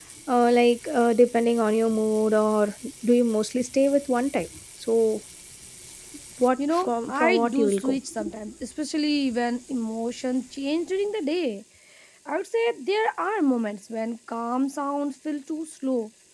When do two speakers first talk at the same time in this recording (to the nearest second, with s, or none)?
7 s